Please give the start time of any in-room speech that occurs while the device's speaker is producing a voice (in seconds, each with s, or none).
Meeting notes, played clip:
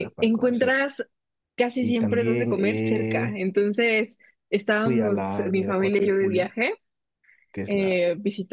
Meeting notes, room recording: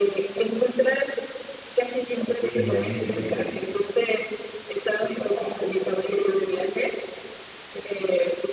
2.5 s